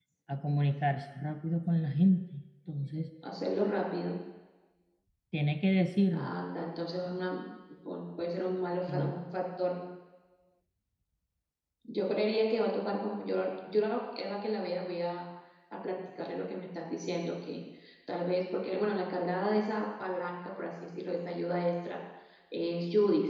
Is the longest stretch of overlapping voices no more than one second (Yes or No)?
Yes